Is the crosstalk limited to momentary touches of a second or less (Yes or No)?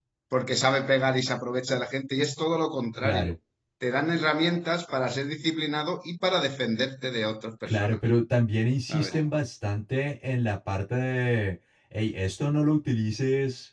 Yes